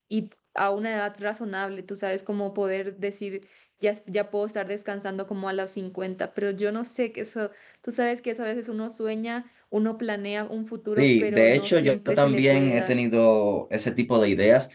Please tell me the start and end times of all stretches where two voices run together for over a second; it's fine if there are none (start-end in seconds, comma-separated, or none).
11.0-12.9